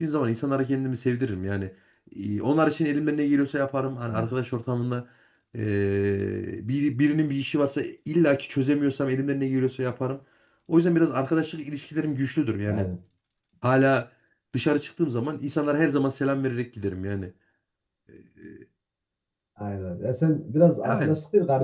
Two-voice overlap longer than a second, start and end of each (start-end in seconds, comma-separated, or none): none